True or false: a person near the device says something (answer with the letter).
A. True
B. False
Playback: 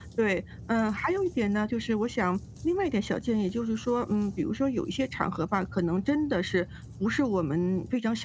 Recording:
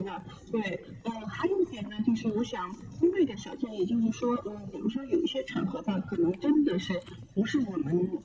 B